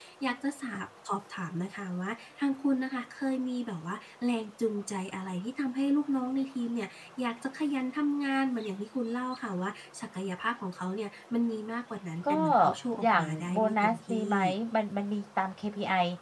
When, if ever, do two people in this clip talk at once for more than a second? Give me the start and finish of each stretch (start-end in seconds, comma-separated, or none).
13.0-14.4